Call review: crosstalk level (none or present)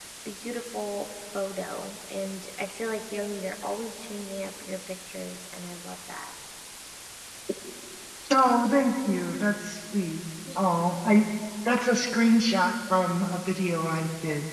none